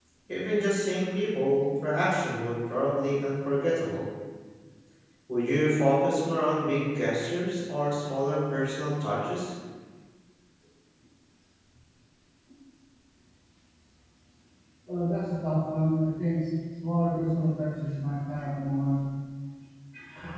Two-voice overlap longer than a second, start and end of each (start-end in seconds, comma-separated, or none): none